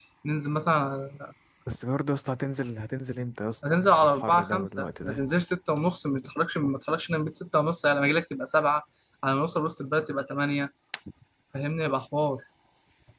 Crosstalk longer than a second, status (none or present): present